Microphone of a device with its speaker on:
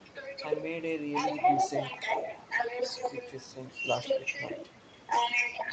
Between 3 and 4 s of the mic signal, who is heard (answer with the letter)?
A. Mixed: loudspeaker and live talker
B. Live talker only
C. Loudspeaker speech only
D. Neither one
A